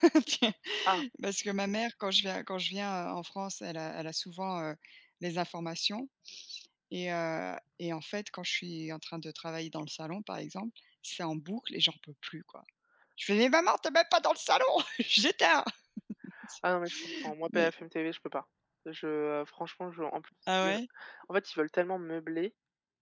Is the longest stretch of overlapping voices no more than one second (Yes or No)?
Yes